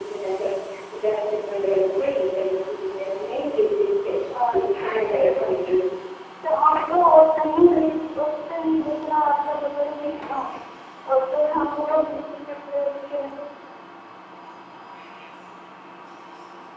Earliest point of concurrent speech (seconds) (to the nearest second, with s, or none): 5 s